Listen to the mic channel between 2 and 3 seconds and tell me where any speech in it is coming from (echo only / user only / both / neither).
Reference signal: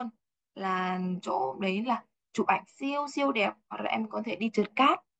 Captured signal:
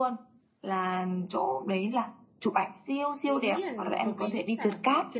echo only